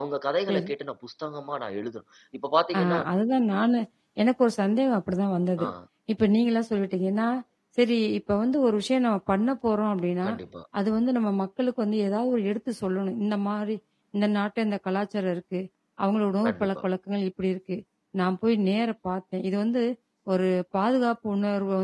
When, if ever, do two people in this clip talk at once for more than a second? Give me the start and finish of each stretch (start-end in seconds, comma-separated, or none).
none